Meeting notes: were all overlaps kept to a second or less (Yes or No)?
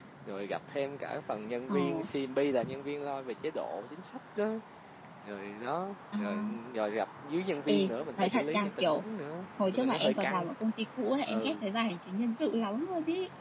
No